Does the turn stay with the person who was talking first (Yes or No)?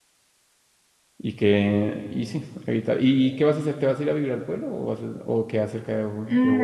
No